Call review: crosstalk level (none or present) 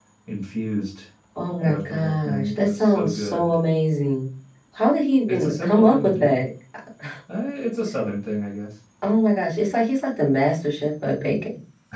present